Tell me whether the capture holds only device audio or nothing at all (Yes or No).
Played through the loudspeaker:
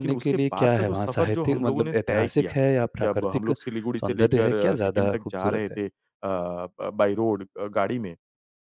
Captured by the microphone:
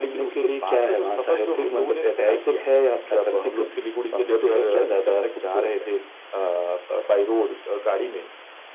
Yes